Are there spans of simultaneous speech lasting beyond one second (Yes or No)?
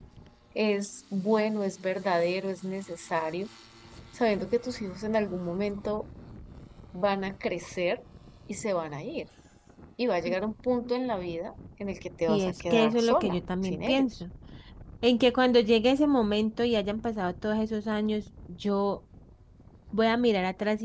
Yes